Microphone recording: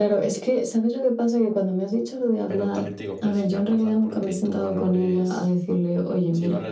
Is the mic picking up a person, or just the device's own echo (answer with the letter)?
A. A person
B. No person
A